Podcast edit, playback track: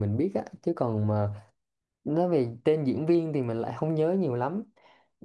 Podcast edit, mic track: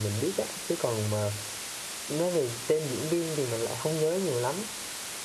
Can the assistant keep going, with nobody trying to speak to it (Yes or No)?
Yes